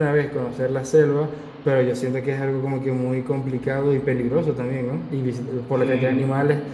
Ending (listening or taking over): listening